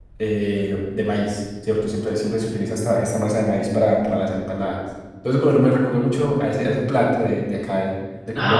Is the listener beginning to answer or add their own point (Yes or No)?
Yes